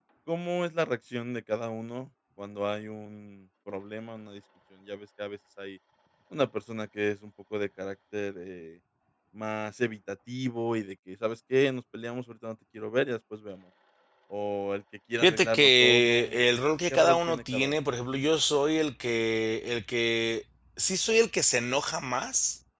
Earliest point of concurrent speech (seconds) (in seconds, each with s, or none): 15.2 s